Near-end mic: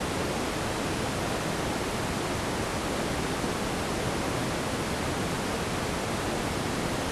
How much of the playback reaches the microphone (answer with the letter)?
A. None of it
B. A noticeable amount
A